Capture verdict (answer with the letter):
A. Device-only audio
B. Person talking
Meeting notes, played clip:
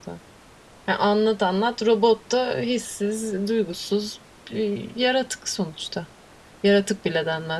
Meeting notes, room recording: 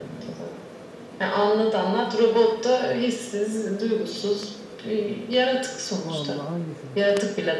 B